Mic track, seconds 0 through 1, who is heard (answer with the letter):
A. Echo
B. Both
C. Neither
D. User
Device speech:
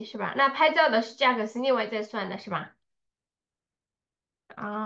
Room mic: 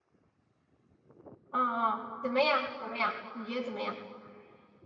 C